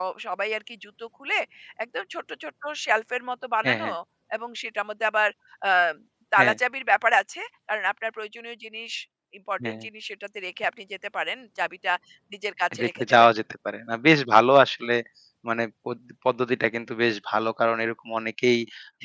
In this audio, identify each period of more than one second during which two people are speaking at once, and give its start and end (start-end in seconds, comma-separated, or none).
none